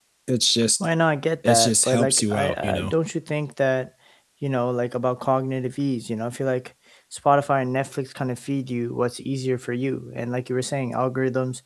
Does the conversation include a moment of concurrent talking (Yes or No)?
Yes